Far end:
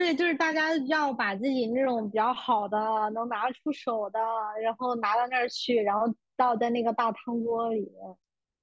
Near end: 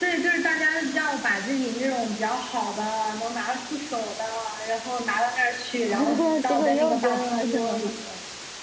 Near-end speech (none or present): present